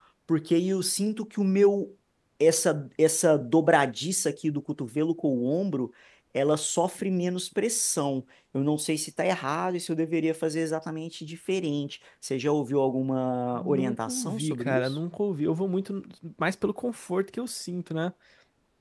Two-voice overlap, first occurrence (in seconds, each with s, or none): 13.5 s